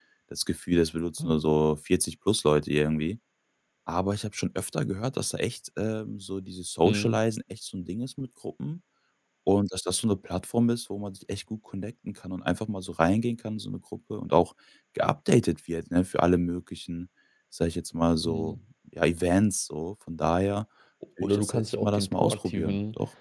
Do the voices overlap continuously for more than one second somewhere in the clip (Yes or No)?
Yes